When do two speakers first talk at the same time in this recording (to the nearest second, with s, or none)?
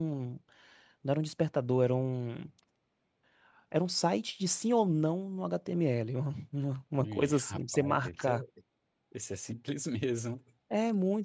7 s